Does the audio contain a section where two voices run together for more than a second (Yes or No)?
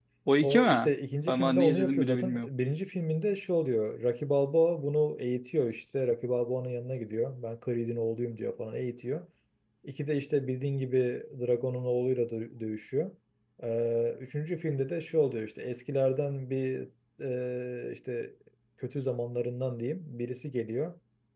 Yes